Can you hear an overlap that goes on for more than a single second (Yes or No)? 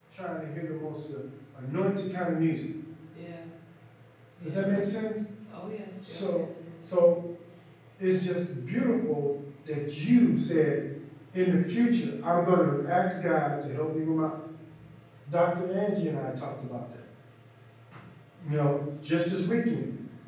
No